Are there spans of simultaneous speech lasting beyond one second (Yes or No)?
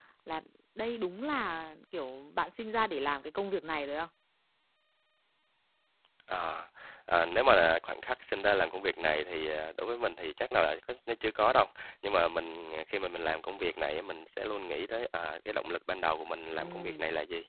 No